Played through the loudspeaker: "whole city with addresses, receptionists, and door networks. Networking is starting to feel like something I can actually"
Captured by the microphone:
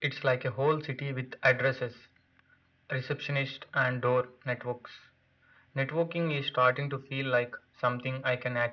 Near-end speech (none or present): none